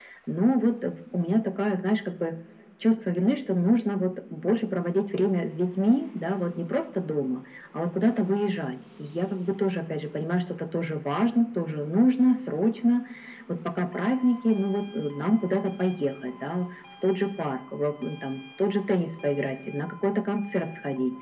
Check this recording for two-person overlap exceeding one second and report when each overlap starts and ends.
none

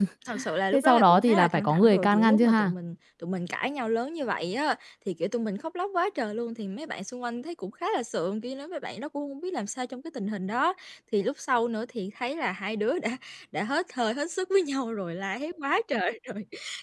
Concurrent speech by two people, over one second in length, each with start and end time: 0.7-2.7

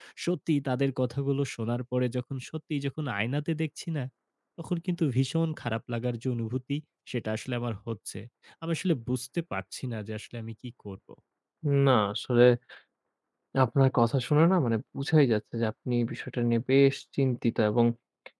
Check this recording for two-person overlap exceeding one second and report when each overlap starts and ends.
none

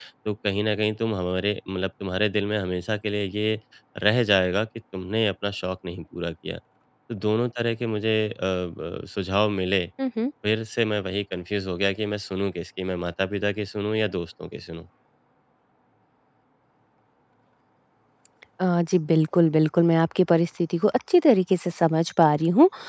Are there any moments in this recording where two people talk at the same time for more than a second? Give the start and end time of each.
none

